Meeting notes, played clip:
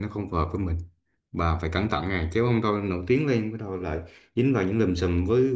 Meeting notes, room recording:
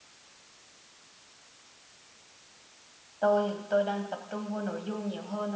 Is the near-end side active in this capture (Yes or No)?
Yes